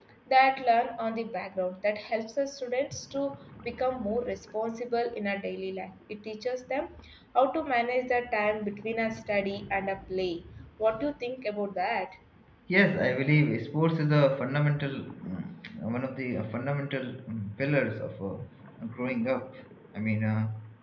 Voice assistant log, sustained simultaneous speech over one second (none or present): none